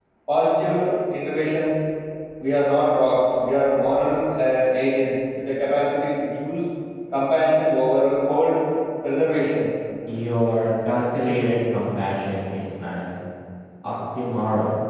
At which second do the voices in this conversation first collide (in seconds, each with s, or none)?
none